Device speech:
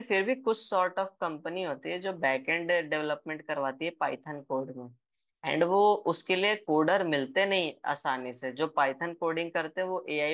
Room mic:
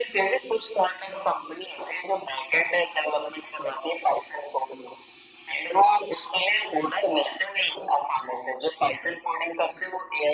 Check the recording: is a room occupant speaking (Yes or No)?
No